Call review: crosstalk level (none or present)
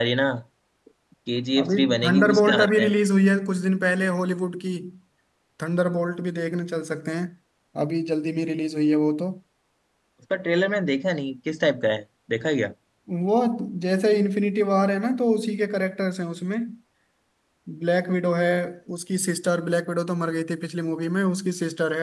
present